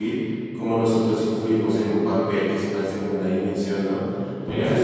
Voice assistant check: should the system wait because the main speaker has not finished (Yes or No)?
Yes